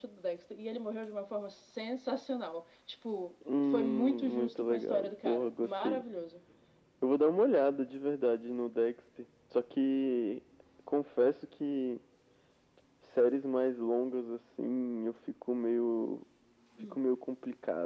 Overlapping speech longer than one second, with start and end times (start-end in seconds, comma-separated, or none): 3.6-6.0